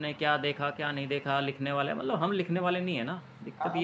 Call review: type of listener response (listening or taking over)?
taking over